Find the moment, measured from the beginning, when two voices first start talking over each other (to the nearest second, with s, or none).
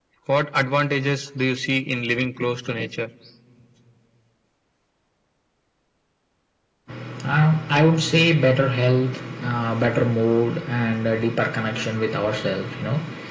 none